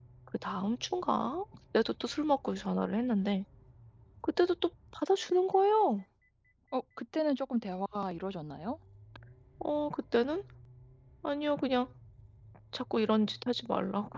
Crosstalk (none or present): none